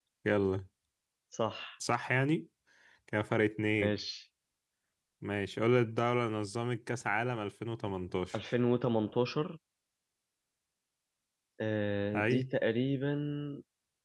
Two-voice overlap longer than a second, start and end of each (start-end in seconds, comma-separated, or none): none